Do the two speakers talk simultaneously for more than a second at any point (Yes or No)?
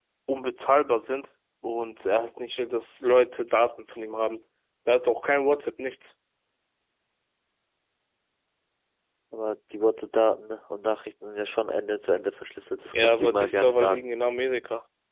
Yes